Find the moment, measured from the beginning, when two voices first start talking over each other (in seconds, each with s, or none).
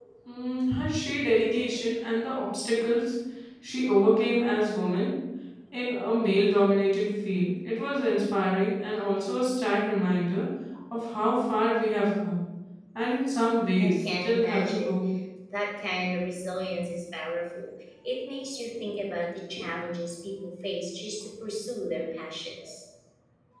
13.8 s